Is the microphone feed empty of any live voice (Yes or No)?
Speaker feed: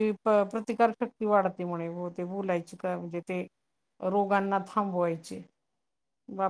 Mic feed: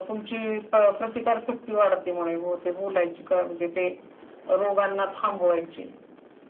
Yes